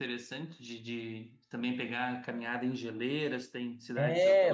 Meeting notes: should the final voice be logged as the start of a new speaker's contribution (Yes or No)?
Yes